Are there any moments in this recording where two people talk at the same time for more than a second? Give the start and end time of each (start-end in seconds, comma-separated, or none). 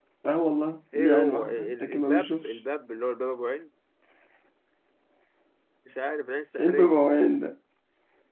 0.9-2.5